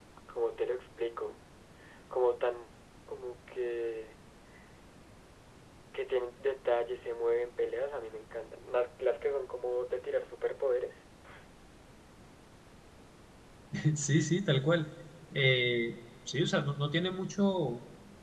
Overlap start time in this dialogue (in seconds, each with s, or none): none